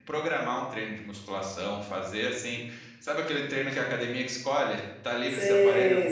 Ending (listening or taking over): taking over